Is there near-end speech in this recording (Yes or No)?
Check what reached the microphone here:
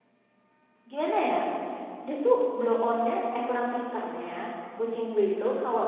Yes